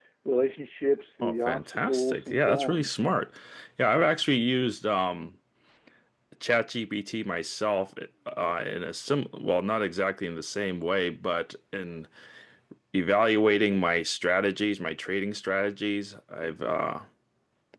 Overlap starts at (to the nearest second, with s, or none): 1 s